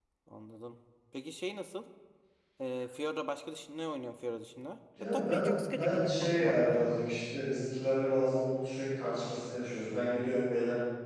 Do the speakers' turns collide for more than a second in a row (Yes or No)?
Yes